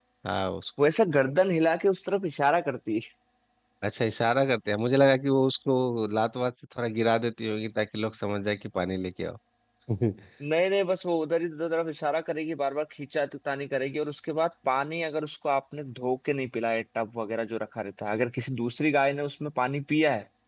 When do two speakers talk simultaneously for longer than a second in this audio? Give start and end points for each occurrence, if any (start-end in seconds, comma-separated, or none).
none